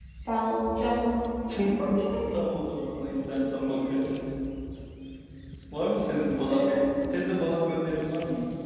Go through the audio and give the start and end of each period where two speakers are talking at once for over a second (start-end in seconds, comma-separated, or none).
none